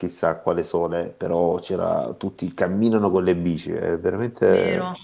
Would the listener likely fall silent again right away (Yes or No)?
No